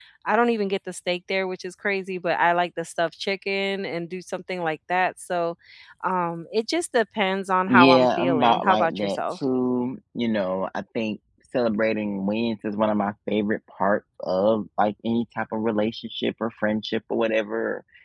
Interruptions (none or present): present